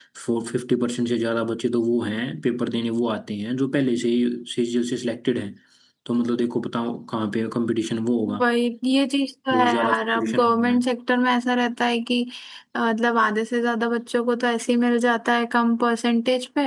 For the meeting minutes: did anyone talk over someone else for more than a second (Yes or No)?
Yes